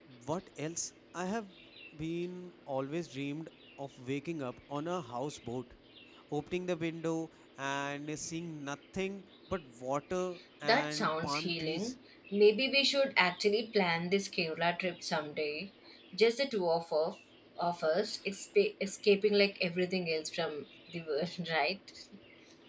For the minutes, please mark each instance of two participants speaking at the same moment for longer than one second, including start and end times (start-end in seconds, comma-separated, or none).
10.6-11.9